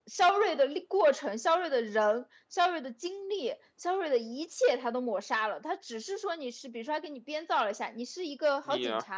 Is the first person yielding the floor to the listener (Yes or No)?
No